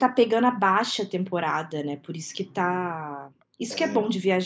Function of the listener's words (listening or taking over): listening